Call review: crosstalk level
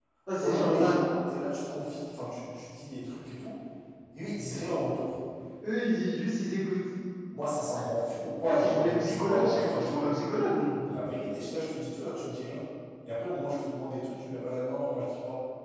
present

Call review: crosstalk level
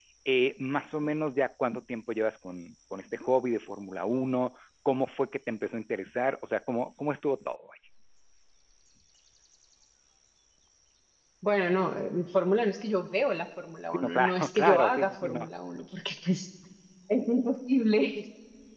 present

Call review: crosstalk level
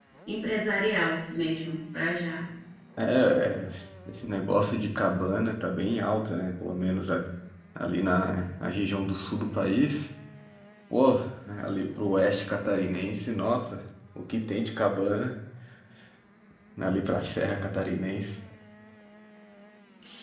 none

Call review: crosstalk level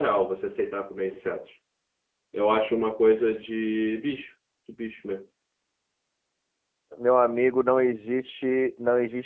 none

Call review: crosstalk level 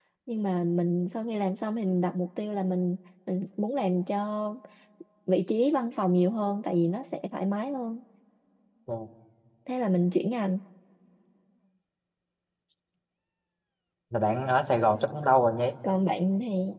none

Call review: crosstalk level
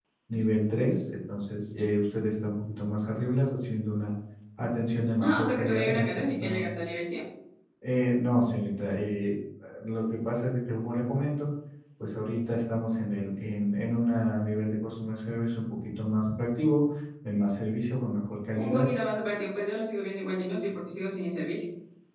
present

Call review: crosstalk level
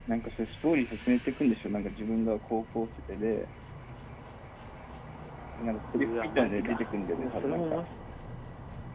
present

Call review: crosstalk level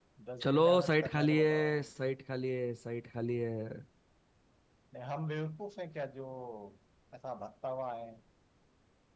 present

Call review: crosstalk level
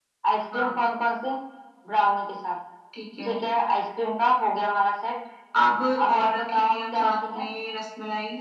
present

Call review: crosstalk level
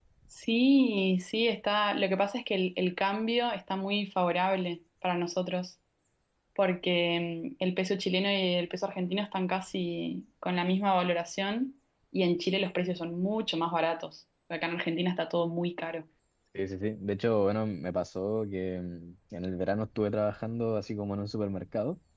none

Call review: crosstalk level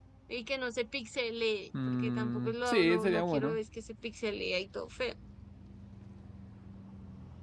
present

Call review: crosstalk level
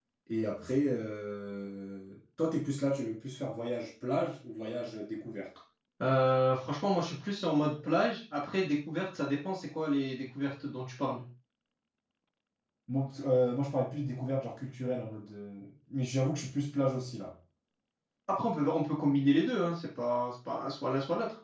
none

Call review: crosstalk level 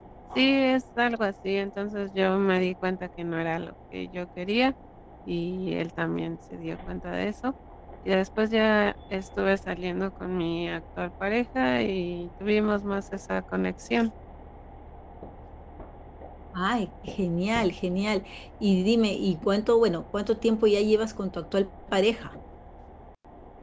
none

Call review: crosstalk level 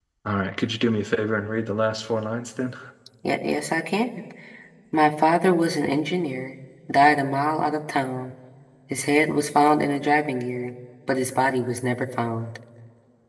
none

